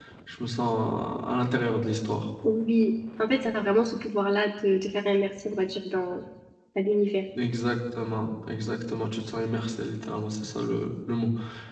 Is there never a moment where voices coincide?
Yes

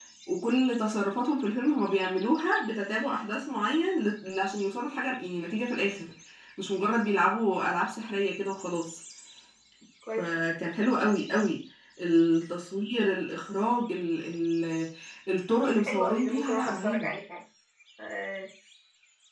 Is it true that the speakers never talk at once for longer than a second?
No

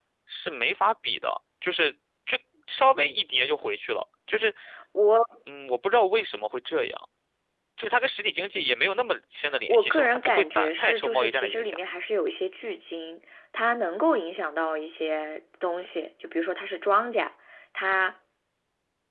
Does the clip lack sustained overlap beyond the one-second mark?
No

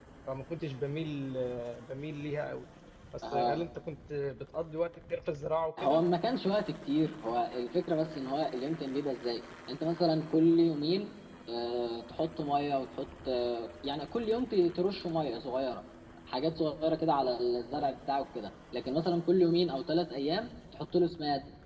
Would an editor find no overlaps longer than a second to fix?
Yes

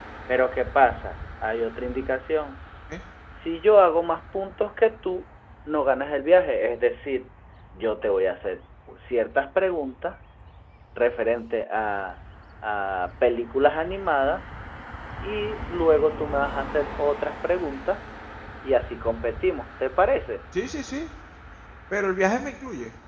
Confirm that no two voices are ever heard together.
Yes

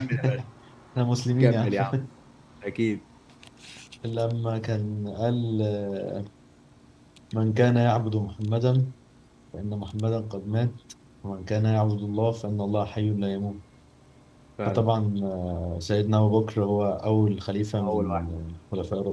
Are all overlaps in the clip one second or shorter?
Yes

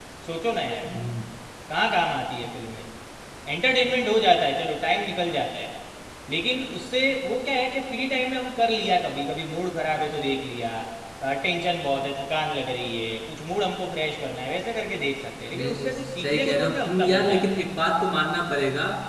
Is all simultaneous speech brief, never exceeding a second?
No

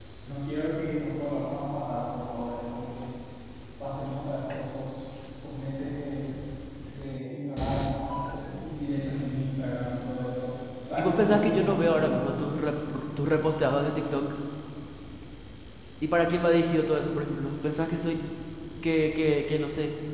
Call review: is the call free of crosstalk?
No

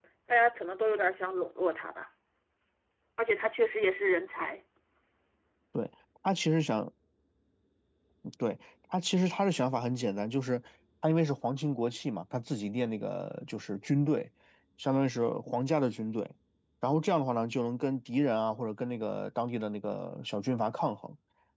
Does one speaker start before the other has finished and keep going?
No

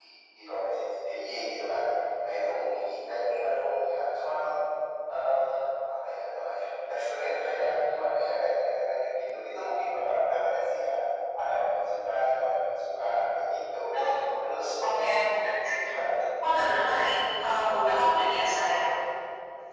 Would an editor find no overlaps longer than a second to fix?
Yes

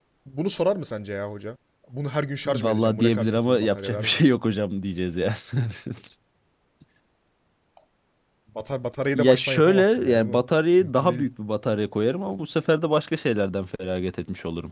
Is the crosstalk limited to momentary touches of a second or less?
No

